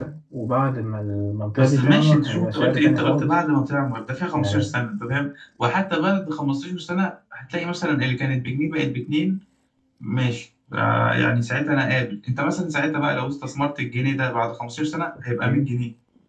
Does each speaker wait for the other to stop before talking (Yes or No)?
No